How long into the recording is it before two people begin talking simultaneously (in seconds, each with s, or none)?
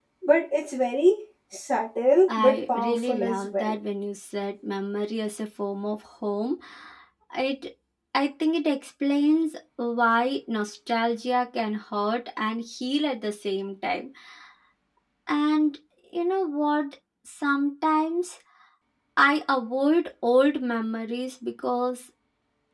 2.3 s